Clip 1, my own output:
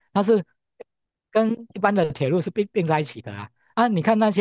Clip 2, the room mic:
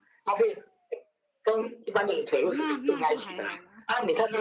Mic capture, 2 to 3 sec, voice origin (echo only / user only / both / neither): both